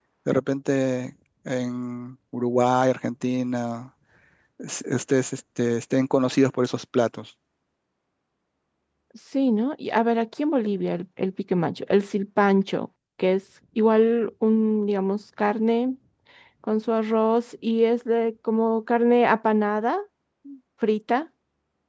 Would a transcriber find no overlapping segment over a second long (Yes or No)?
Yes